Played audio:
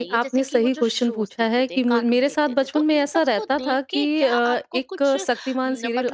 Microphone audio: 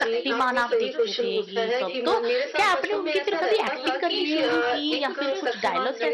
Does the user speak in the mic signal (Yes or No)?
Yes